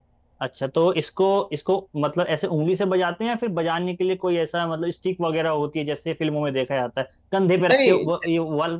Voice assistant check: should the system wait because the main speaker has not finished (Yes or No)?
Yes